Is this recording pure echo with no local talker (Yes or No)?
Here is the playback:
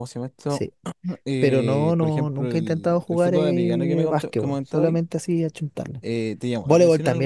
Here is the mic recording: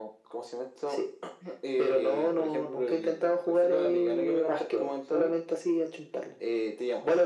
Yes